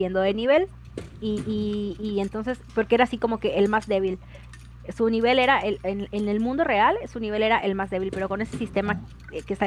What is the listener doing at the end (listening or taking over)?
listening